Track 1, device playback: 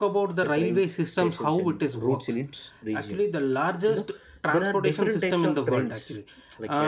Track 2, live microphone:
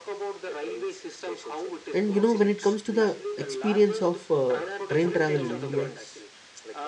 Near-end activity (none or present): present